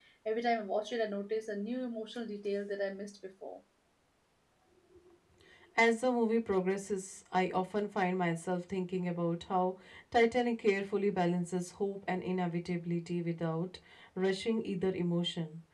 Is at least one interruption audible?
No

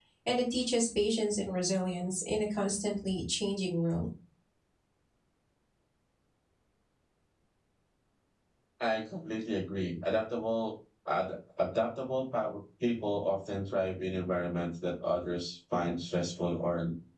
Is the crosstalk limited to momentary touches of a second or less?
Yes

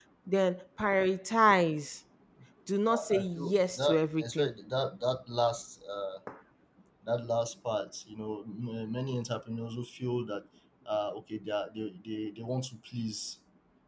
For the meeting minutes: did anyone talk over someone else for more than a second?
Yes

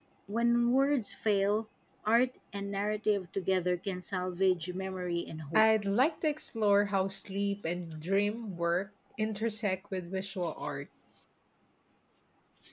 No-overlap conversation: Yes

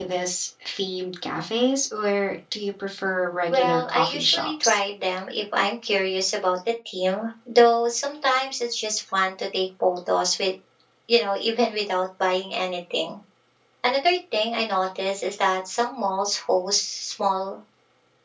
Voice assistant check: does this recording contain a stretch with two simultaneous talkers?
Yes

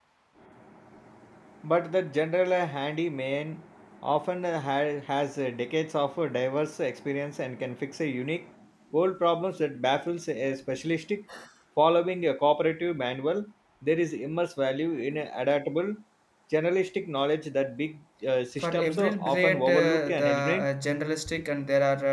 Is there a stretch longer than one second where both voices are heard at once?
Yes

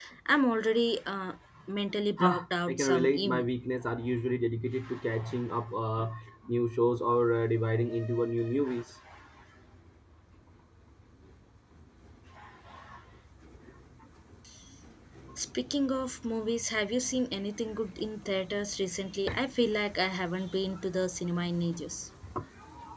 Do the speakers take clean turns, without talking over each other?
No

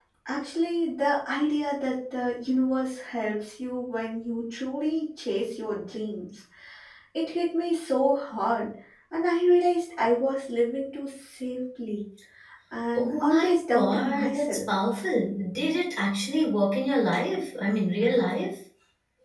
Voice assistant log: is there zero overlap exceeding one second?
No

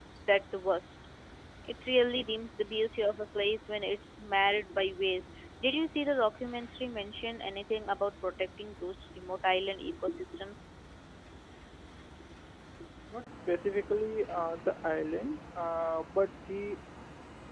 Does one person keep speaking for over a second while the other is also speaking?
No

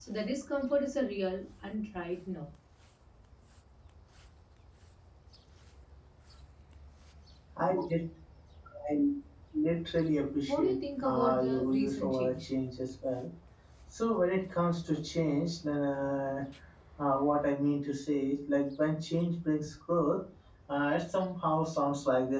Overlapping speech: Yes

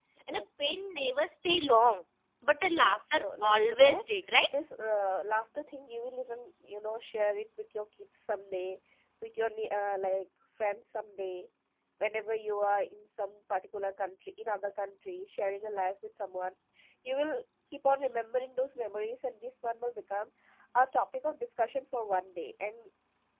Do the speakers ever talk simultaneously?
Yes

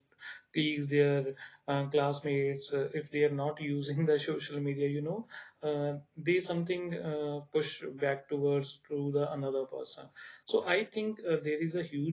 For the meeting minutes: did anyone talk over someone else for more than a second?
No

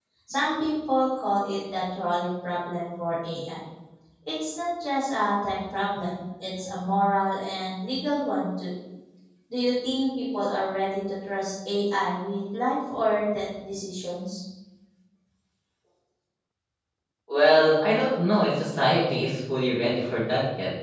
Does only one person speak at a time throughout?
Yes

